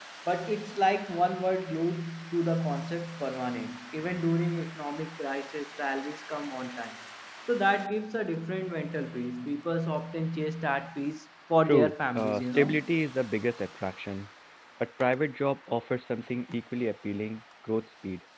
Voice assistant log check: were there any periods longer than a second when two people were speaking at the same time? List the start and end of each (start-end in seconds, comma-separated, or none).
11.6-12.9